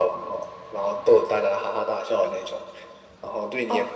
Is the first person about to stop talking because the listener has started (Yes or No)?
Yes